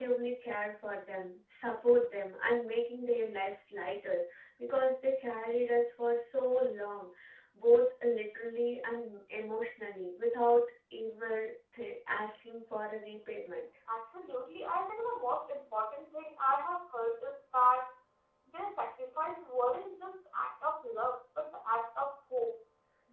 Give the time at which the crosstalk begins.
none

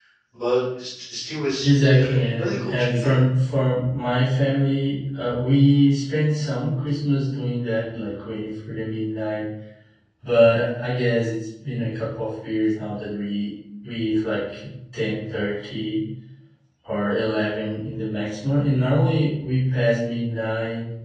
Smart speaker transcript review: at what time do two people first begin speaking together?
2 s

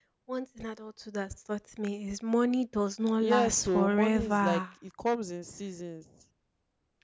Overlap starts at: 3 s

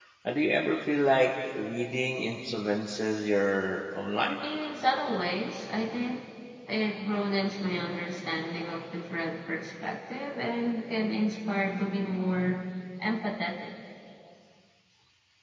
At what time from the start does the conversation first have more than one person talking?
none

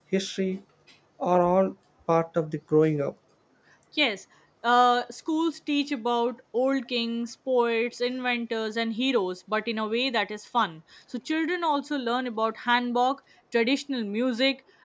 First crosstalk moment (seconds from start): none

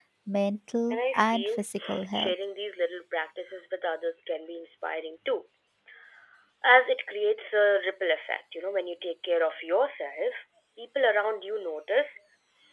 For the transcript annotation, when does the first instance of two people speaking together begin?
1 s

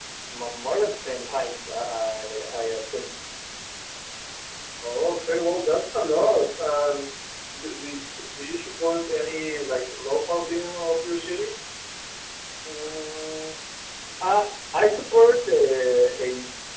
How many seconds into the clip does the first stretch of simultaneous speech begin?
none

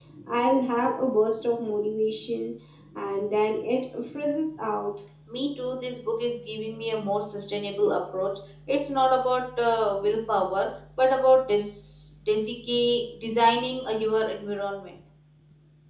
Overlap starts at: none

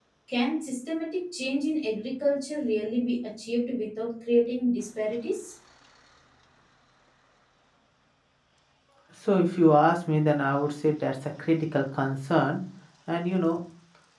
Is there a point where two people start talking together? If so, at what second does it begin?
none

